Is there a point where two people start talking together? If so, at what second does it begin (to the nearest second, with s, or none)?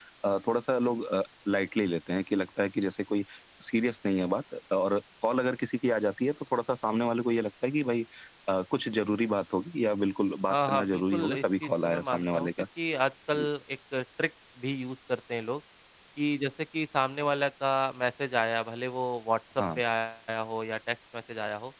11 s